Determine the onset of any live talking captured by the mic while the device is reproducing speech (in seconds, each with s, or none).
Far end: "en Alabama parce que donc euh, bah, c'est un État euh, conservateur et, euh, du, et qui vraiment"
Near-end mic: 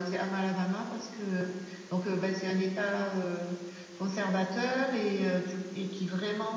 none